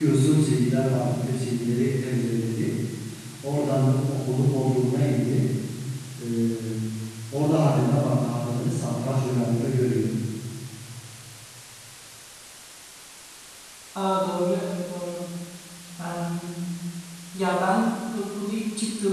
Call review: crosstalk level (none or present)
none